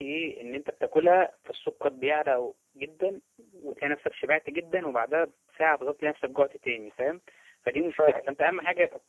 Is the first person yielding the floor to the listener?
No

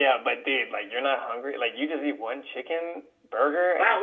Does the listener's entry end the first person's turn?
Yes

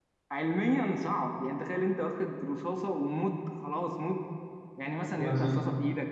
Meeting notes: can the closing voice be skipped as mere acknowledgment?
Yes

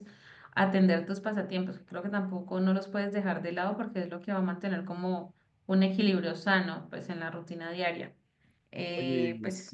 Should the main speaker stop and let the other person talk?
Yes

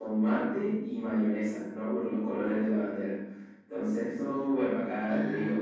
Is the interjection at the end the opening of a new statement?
No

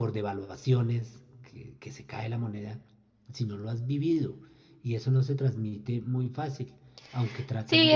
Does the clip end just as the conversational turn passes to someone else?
Yes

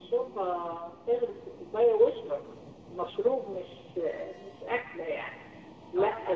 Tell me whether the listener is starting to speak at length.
No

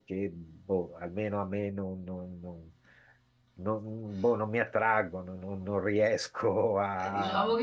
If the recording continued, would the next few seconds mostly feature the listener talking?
Yes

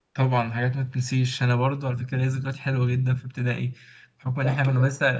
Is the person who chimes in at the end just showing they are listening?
Yes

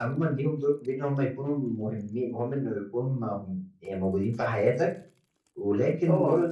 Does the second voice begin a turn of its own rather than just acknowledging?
No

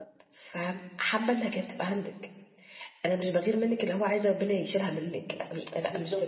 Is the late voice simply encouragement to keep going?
Yes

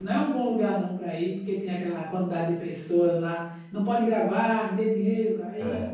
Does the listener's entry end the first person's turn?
No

